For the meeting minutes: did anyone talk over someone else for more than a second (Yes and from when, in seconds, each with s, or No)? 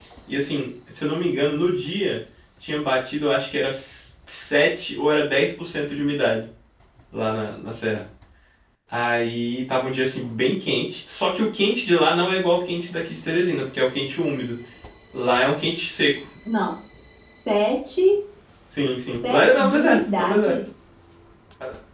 Yes, from 19.3 s